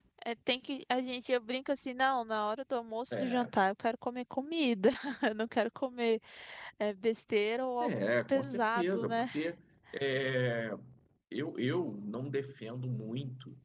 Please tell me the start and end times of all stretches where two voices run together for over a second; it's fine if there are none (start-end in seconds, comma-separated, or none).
7.8-9.2